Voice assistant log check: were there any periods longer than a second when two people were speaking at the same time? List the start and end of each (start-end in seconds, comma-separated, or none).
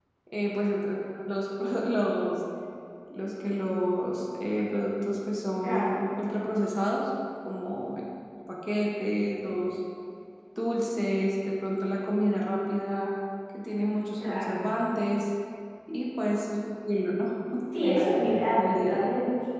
17.8-19.1